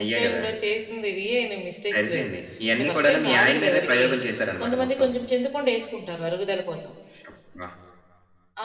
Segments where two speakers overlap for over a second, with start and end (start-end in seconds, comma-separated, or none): 2.7-4.1